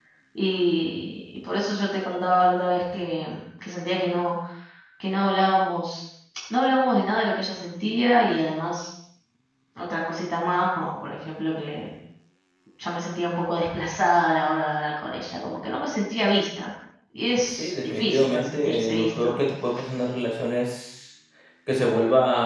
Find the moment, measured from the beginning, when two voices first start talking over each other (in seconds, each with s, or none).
17.6 s